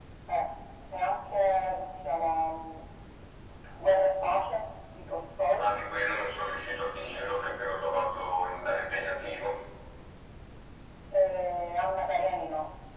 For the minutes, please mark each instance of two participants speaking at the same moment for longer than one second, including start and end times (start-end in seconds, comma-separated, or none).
none